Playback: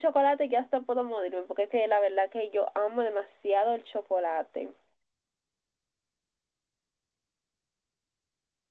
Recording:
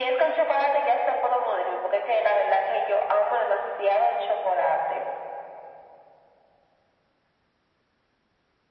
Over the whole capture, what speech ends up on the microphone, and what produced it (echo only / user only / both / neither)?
echo only